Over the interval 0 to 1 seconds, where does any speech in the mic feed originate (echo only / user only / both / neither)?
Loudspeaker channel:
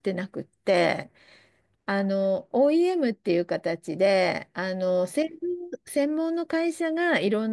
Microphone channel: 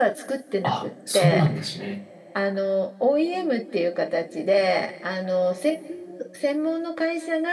both